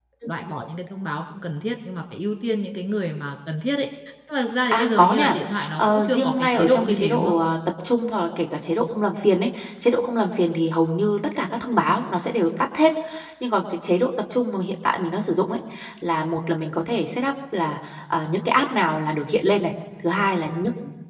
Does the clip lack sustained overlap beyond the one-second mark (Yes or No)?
No